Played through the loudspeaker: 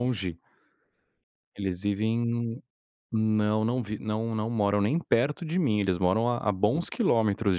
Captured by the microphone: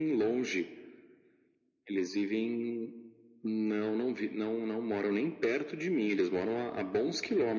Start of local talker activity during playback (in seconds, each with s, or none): none